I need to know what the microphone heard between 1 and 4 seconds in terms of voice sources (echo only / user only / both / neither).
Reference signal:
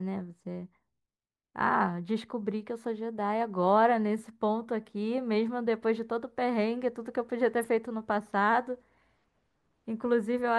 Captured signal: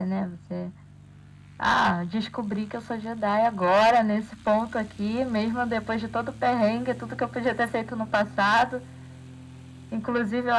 echo only